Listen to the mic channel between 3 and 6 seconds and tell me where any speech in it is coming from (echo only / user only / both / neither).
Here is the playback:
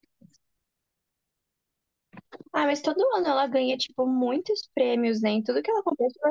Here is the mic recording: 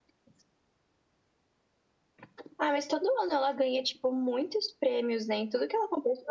echo only